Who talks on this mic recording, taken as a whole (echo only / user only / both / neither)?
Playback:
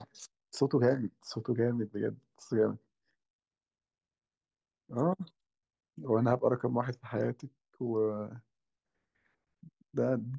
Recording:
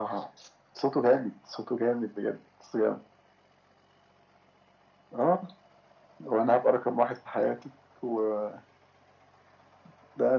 echo only